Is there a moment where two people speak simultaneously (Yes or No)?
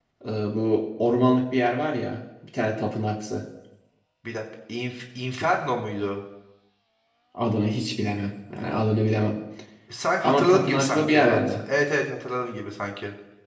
Yes